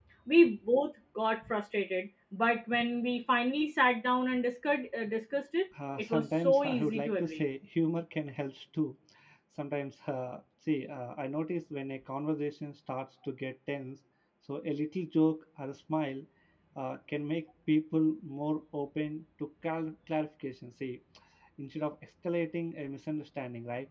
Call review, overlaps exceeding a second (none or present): present